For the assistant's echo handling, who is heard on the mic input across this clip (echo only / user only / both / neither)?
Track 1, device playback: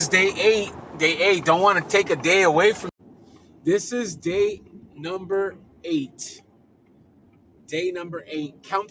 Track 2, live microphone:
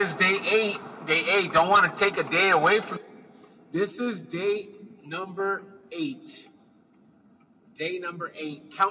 echo only